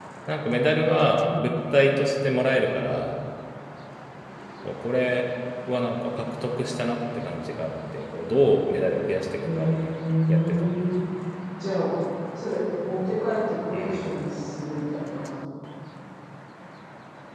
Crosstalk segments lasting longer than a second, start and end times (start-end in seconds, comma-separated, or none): none